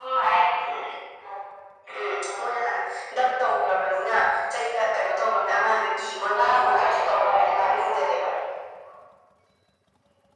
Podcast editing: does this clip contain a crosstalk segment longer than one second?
Yes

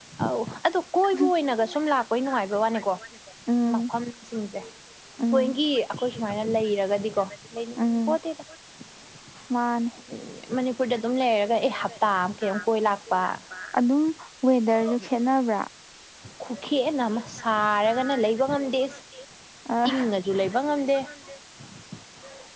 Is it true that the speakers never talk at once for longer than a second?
Yes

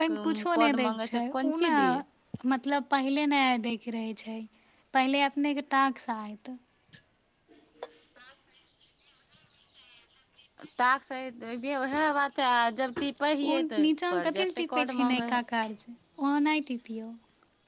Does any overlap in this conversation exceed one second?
Yes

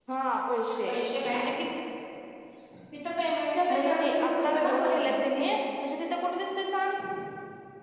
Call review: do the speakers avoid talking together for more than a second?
No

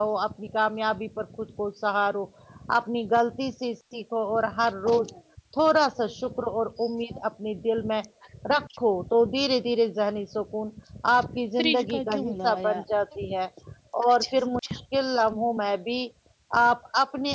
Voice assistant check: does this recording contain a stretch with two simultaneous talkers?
Yes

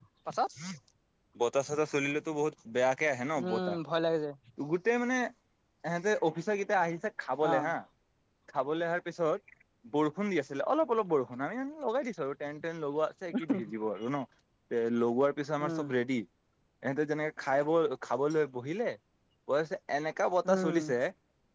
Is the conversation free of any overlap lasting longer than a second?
Yes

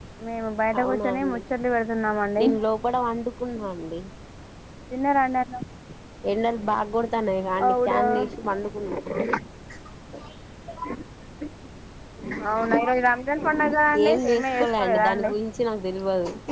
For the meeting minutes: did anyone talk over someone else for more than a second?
Yes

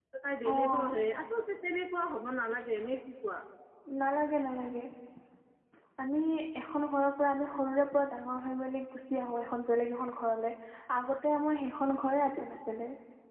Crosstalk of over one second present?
No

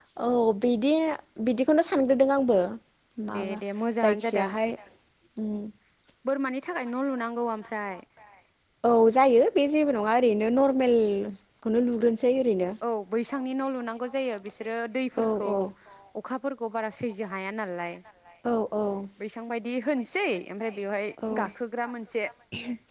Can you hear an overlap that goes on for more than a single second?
No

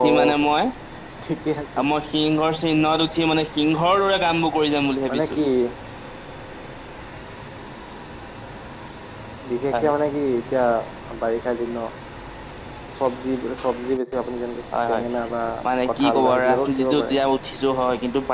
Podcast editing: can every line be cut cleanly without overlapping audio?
No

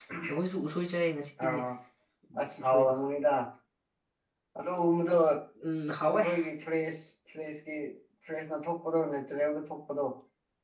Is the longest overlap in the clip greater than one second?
No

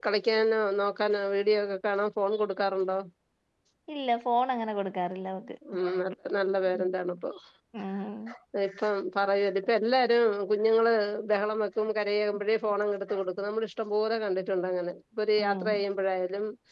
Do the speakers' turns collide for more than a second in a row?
No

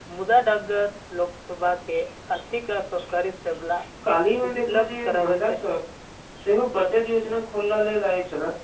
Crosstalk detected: Yes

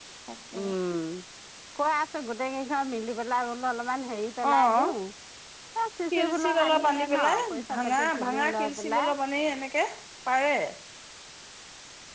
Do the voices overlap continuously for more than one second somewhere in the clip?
Yes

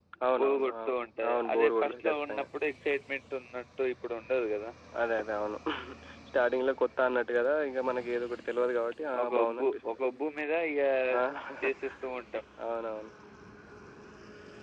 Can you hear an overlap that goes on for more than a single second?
Yes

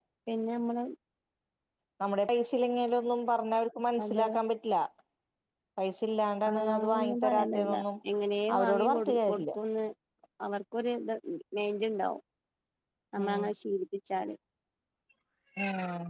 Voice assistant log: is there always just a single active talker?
No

